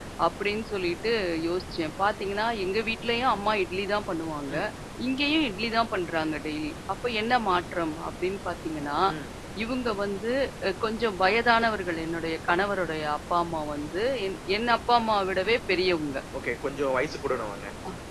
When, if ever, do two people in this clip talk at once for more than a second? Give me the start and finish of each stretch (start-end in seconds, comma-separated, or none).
none